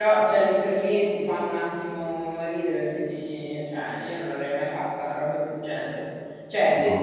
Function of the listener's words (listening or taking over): listening